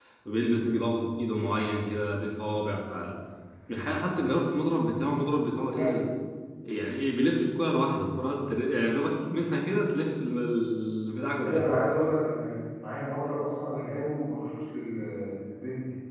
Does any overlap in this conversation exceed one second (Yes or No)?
No